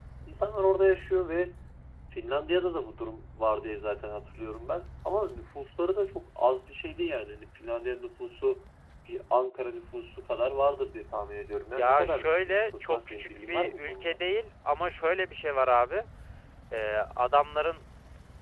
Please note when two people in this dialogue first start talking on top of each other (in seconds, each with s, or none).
11.7 s